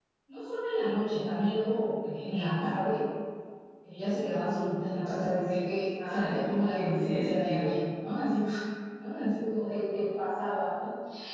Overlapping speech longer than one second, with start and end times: 6.1-7.8

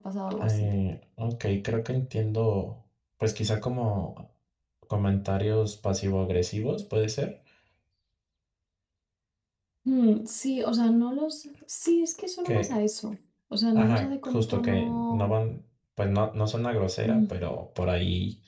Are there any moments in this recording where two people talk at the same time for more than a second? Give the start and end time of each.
13.8-15.3

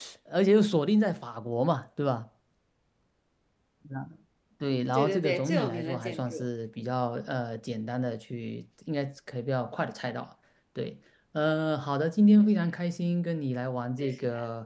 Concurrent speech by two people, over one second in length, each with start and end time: 5.0-6.4

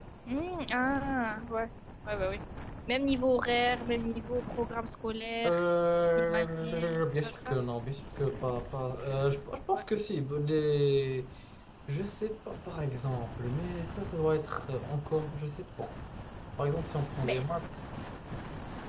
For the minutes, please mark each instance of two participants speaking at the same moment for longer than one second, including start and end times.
6.2-7.6

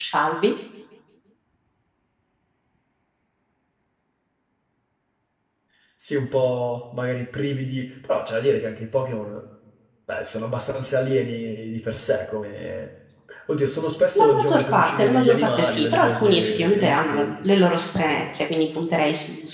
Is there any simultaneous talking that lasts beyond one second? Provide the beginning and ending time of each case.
14.2-17.3

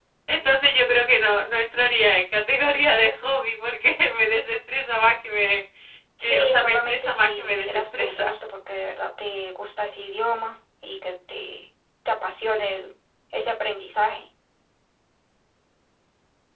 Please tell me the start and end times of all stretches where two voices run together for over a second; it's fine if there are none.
6.2-8.3

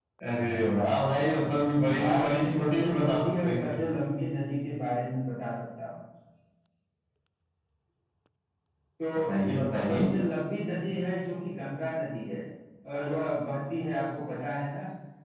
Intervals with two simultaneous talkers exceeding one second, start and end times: 2.0-3.8

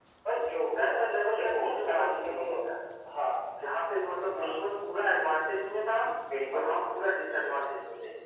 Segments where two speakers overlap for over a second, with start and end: 0.8-2.3

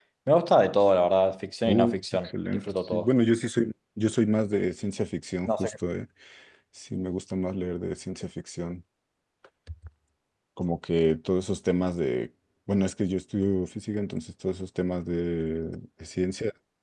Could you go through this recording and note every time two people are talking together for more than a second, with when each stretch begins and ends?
1.7-3.1

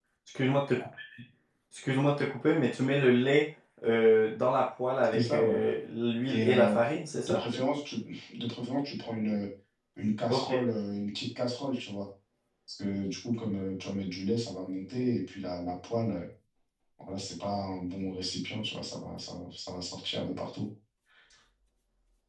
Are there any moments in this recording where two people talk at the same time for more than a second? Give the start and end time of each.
none

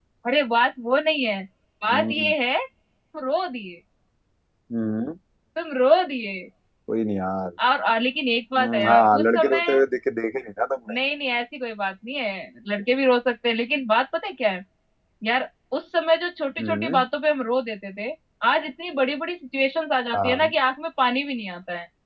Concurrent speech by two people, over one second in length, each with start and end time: 8.6-9.8

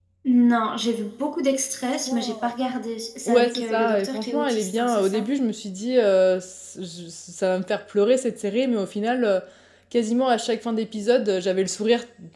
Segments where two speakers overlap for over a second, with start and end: 3.3-5.3

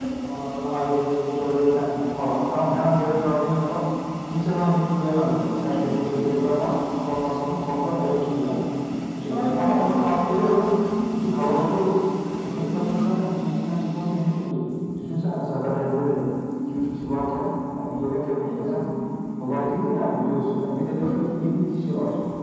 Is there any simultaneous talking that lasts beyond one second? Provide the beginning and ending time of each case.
9.3-10.7

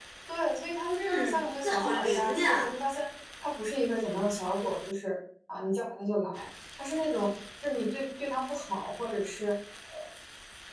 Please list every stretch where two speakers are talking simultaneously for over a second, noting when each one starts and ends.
1.0-2.7

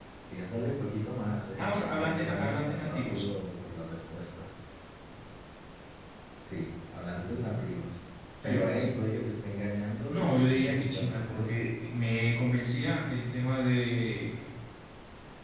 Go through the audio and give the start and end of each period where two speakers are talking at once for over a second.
1.6-3.2, 10.1-11.5

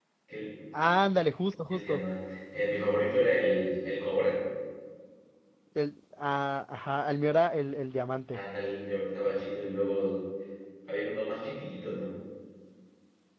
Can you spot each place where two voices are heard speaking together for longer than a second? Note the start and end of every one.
none

